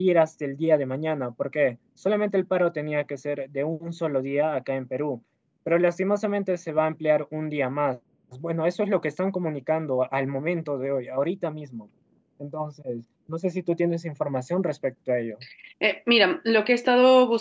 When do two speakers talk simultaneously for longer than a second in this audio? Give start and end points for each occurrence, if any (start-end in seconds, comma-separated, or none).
none